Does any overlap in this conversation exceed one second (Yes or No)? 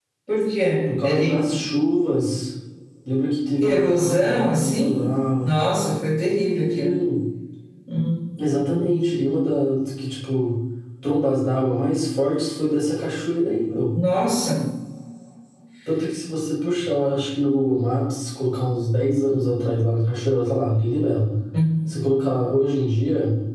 Yes